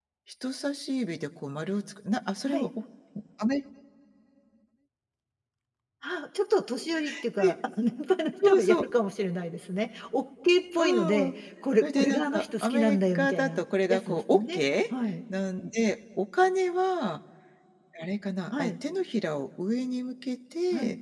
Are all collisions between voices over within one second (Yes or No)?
No